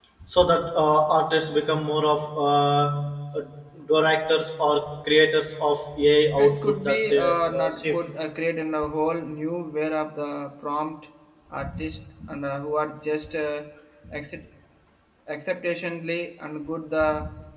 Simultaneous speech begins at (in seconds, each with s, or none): 6.4 s